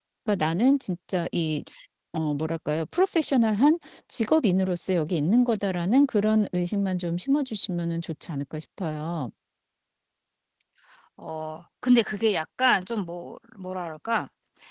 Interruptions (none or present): none